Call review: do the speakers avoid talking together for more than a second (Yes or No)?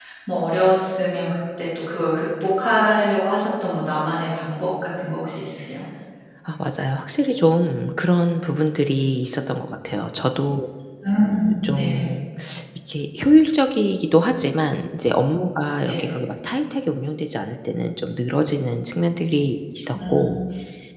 Yes